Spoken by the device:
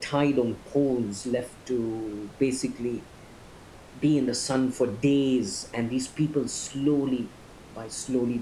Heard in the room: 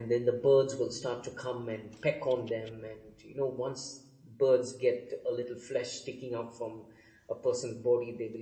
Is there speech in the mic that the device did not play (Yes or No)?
Yes